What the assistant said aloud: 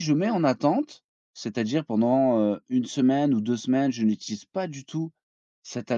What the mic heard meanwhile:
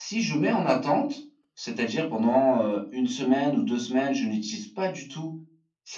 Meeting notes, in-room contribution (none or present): none